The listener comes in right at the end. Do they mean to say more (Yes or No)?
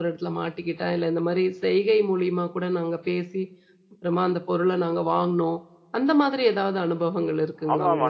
Yes